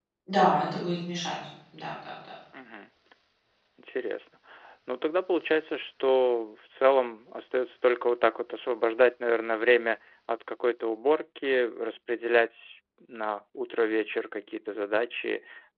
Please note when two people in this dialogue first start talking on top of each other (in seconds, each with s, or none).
none